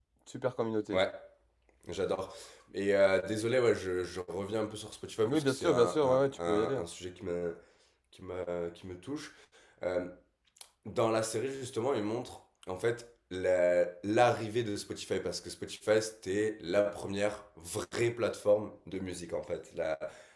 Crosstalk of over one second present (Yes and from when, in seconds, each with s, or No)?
Yes, from 5.2 s